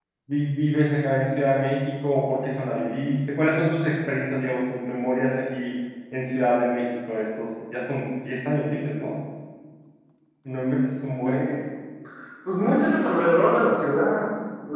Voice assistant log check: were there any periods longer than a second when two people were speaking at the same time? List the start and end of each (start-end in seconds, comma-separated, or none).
none